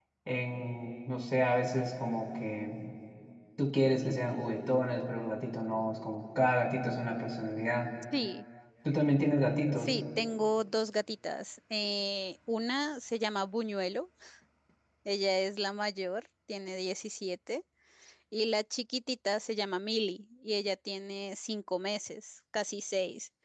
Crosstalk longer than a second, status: none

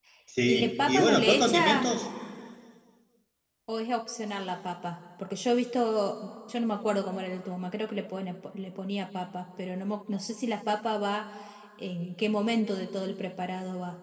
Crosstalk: present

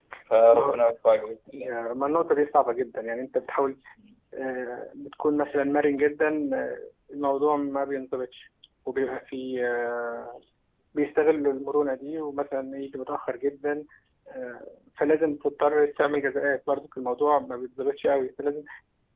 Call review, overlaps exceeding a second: none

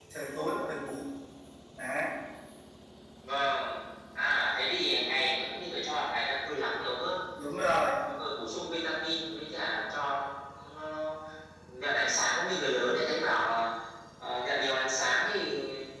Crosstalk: none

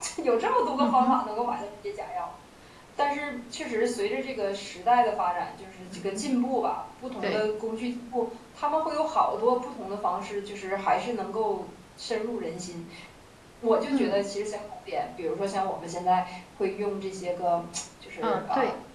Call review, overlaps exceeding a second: none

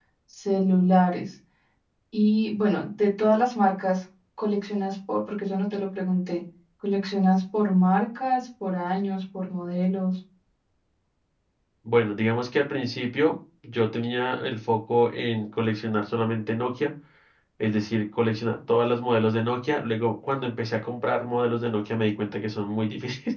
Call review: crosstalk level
none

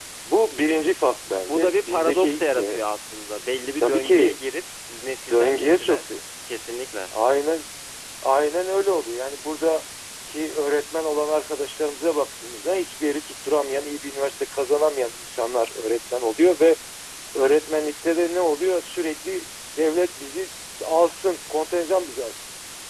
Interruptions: present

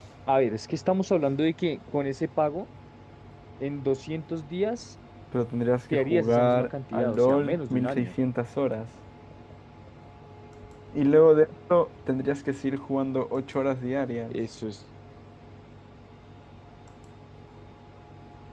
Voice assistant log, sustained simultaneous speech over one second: present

